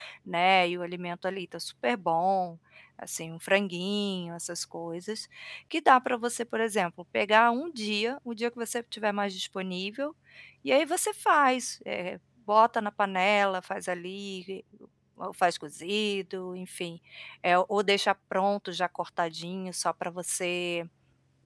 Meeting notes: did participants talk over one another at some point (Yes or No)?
No